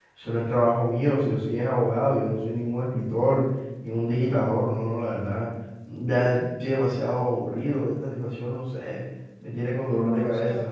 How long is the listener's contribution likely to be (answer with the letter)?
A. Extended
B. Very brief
A